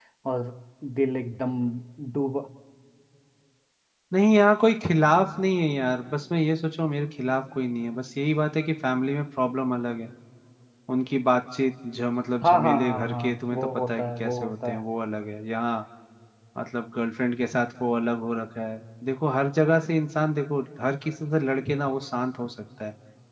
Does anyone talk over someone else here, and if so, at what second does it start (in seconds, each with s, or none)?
12.4 s